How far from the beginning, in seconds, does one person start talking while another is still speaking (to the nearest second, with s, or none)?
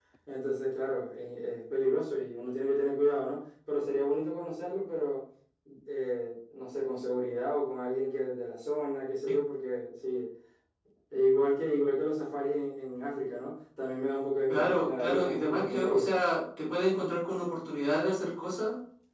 14 s